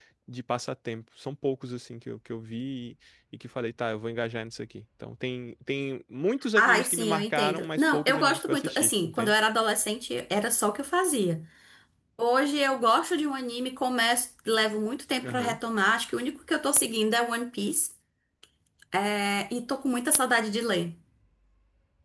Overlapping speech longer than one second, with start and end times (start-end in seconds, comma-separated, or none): 6.6-9.3